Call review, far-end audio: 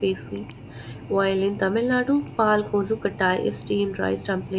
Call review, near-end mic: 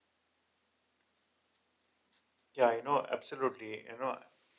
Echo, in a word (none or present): none